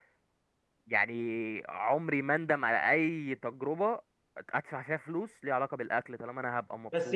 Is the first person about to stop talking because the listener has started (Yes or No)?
Yes